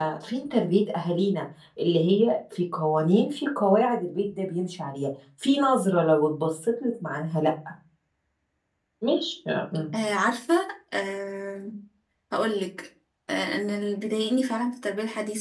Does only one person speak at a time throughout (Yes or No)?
Yes